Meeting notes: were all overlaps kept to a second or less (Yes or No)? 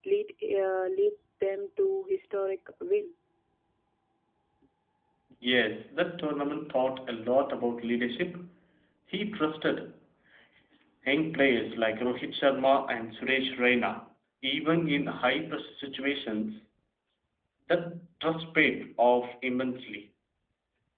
Yes